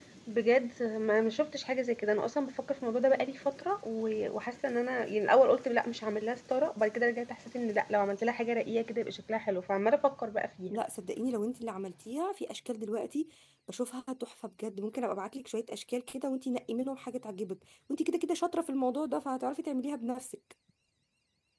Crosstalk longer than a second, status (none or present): none